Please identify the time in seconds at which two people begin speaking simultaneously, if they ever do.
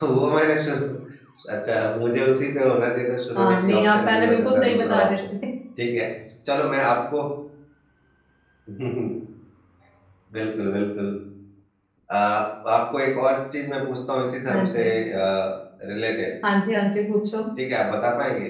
3.4 s

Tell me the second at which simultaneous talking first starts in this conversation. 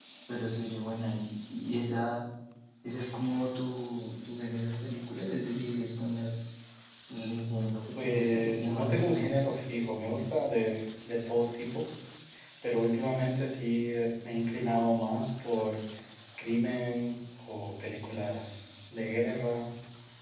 8.0 s

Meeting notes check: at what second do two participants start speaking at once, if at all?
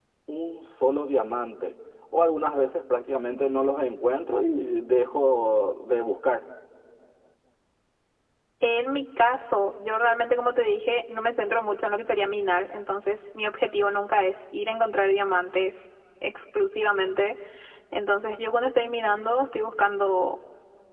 none

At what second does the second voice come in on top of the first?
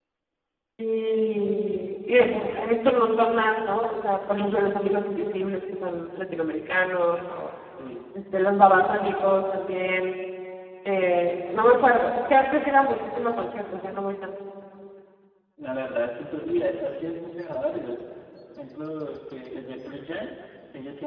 none

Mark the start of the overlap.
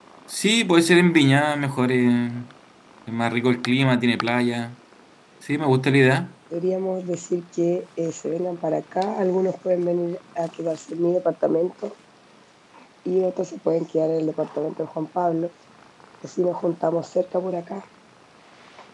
none

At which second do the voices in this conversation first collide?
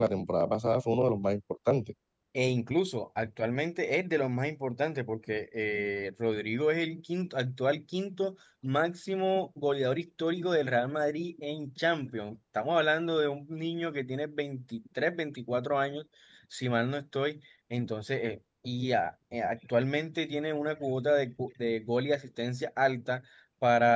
none

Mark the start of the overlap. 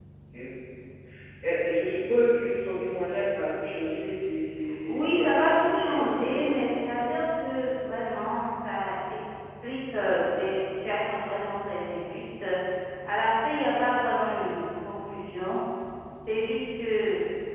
4.9 s

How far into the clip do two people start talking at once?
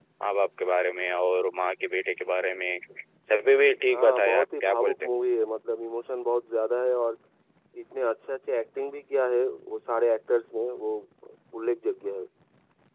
3.9 s

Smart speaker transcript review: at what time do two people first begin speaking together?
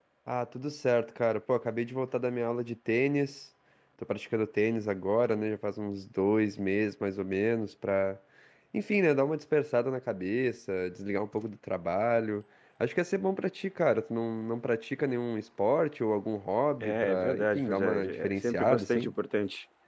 16.8 s

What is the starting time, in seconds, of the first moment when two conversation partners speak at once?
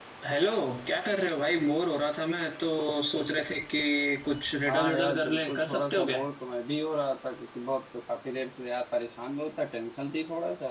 4.7 s

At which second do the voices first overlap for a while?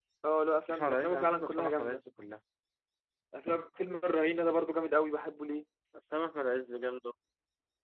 0.7 s

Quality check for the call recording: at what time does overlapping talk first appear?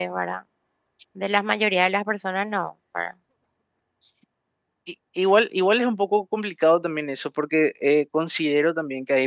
none

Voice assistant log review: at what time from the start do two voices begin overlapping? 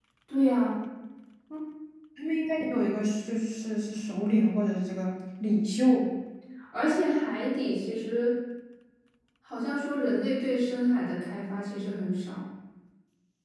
none

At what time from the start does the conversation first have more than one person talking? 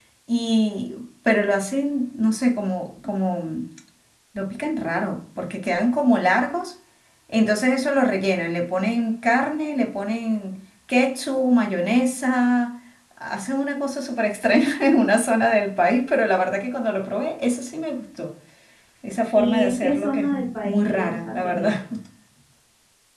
19.3 s

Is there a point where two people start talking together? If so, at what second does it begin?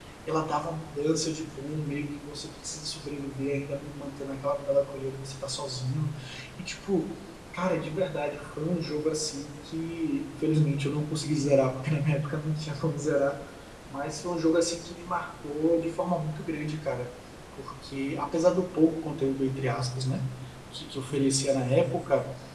none

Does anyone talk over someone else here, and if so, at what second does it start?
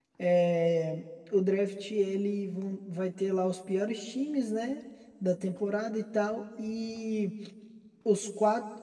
none

